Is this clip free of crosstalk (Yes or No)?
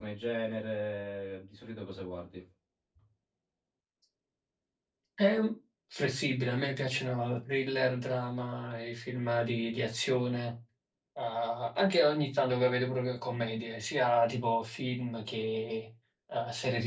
Yes